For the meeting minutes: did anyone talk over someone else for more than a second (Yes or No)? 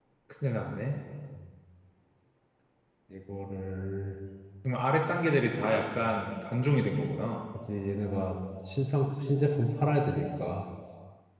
No